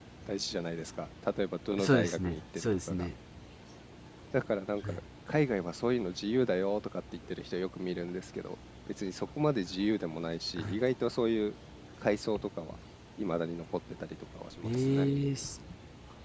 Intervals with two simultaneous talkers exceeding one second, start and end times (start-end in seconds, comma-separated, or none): 1.8-3.1